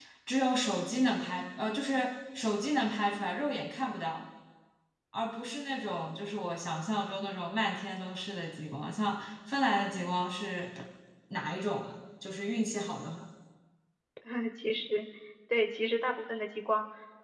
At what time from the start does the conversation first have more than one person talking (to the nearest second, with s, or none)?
none